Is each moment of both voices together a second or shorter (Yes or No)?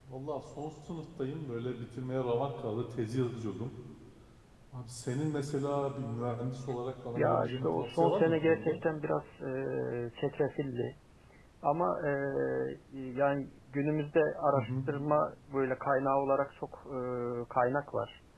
No